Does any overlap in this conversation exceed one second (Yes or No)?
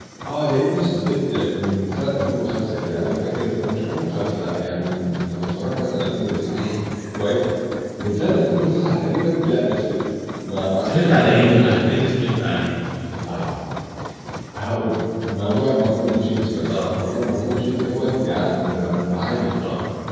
Yes